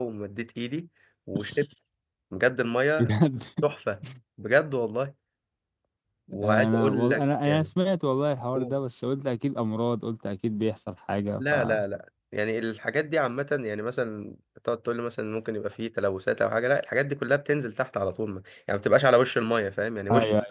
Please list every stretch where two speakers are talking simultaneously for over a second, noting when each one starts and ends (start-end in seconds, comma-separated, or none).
6.4-7.7